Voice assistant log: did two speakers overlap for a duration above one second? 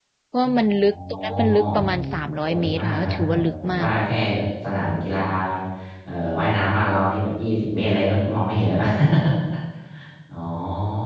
Yes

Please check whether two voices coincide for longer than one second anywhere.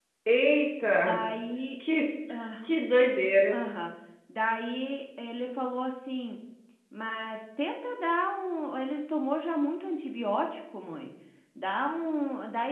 No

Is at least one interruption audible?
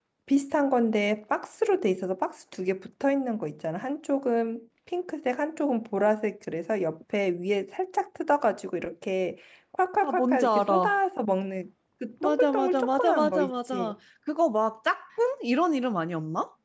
Yes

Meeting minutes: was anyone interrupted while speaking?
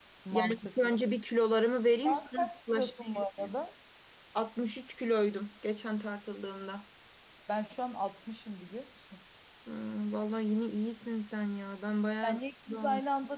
Yes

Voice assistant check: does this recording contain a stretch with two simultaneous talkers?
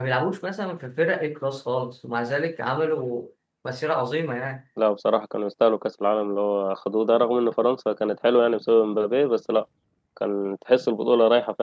No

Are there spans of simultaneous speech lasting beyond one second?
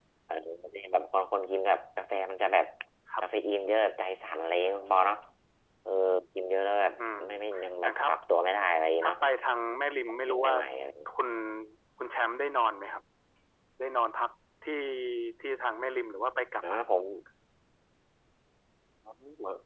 No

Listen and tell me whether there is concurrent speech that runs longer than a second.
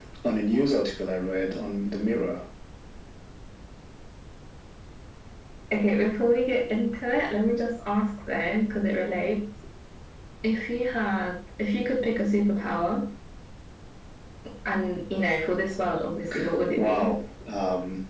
No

